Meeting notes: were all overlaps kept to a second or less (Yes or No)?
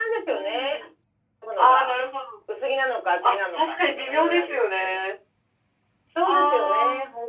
No